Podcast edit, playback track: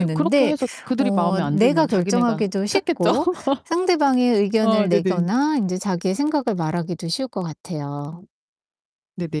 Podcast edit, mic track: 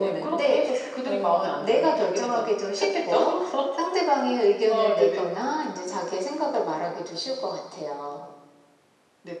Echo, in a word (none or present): present